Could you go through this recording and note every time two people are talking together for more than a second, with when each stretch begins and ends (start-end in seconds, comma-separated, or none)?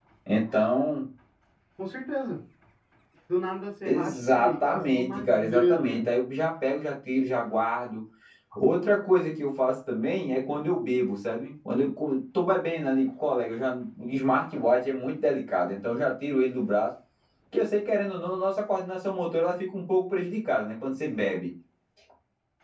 3.8-6.1